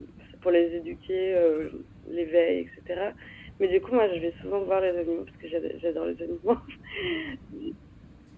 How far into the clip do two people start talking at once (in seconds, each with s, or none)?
none